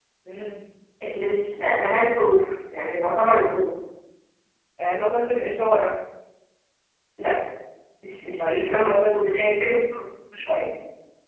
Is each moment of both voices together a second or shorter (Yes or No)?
No